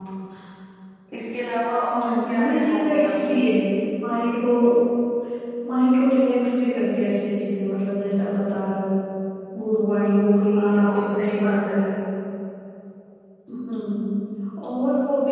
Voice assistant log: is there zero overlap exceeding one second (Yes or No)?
No